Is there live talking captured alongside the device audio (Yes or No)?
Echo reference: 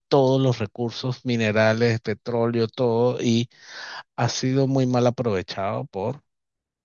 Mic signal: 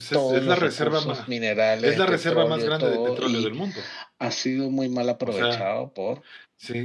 Yes